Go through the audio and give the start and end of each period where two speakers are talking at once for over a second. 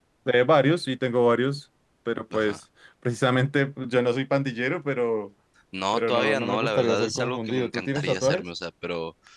5.9-8.4

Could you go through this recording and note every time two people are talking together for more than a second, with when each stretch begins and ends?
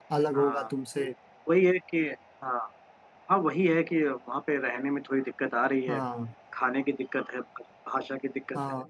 none

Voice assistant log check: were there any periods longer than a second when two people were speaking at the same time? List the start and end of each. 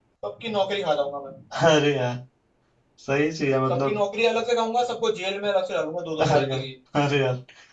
none

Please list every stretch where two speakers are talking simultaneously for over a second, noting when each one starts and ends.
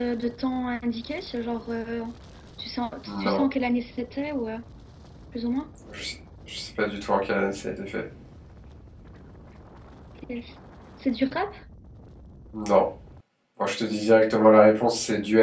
none

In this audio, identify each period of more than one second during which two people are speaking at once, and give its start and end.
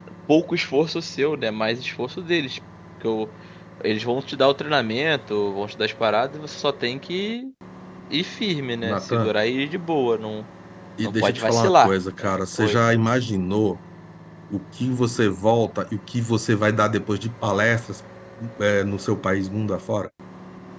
11.0-12.8

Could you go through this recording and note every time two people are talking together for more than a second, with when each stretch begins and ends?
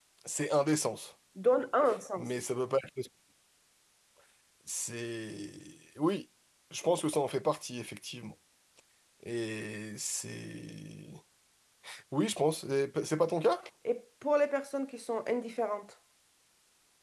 none

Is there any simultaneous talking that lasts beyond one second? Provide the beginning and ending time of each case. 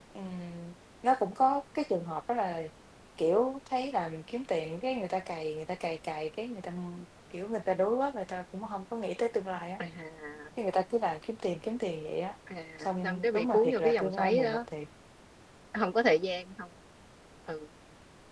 13.0-14.6

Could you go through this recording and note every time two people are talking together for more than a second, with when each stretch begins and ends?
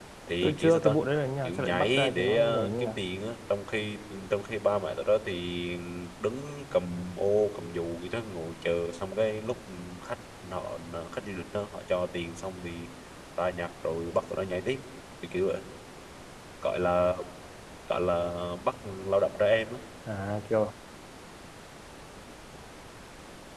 1.4-3.1

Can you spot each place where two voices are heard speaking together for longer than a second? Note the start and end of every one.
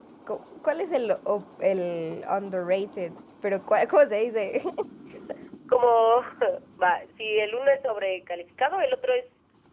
none

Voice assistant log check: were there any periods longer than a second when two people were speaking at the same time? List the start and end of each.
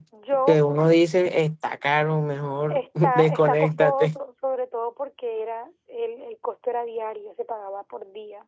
2.7-4.2

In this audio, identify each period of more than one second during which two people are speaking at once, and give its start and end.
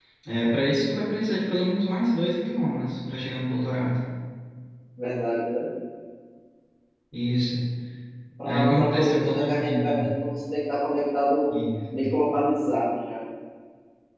8.4-10.0

